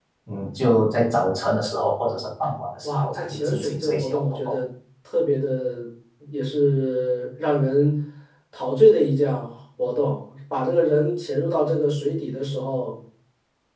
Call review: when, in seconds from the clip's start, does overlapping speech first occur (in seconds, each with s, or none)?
2.8 s